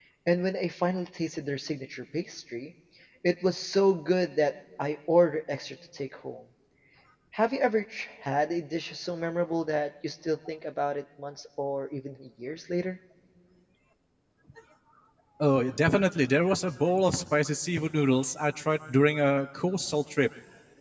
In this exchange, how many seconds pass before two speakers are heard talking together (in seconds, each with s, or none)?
none